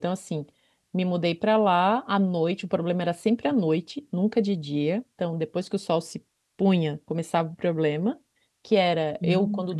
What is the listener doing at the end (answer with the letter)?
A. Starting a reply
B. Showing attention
B